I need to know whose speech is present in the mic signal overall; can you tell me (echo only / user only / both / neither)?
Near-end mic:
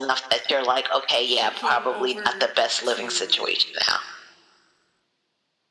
both